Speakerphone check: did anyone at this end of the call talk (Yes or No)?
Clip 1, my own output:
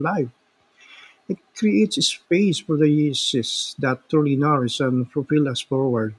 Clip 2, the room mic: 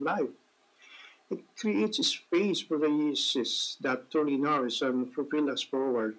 No